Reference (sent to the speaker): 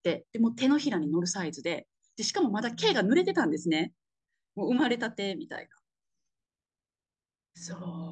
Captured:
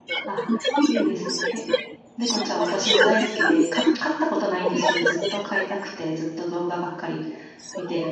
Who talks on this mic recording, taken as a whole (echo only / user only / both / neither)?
both